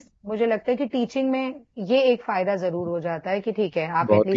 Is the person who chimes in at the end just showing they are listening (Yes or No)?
No